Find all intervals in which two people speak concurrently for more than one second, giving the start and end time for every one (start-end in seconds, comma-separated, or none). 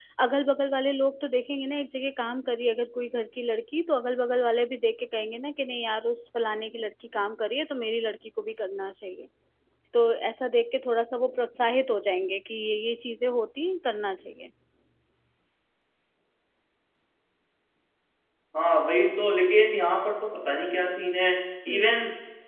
none